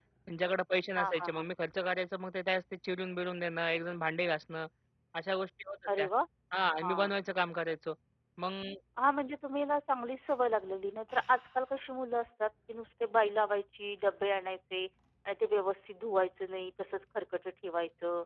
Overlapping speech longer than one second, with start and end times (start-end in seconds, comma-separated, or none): none